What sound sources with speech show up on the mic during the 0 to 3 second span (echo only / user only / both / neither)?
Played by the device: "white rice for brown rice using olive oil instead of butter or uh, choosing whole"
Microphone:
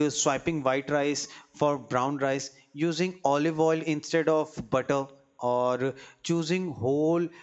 echo only